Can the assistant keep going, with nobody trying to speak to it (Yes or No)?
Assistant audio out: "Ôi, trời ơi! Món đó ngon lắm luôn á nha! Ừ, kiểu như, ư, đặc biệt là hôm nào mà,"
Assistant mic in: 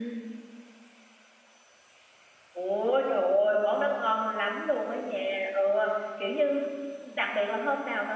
Yes